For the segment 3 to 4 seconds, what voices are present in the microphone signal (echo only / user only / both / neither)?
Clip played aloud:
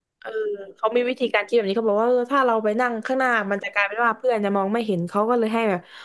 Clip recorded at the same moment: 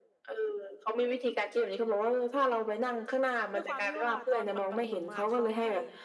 both